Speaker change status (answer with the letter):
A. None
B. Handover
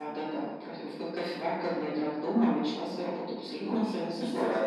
B